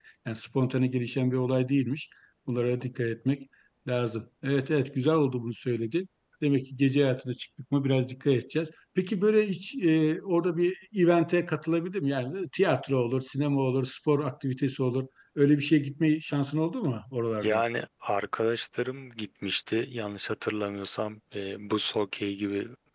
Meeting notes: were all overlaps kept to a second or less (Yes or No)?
Yes